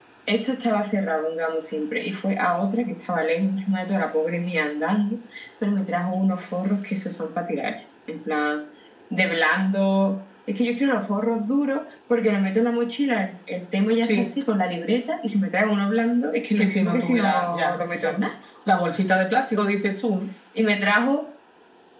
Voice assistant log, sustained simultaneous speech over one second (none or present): present